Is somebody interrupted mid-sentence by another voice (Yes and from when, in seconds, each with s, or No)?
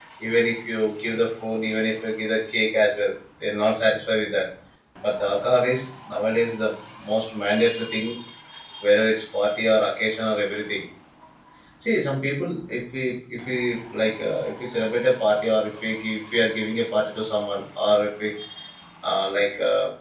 No